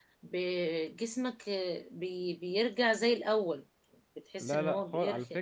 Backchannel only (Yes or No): No